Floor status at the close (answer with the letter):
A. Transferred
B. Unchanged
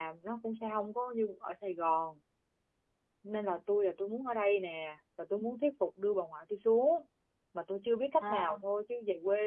B